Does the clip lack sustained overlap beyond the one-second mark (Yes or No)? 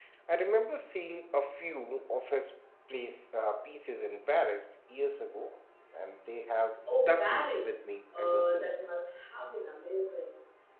No